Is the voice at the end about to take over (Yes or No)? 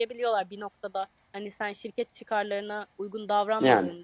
No